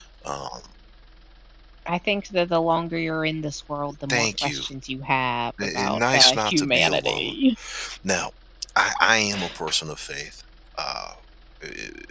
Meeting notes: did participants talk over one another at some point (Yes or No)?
Yes